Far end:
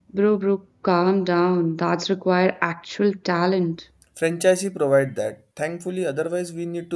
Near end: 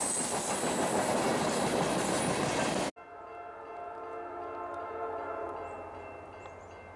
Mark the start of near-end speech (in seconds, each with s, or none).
none